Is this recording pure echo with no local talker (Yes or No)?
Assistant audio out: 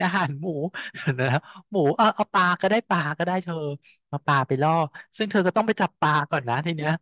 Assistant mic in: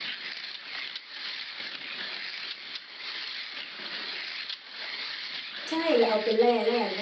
No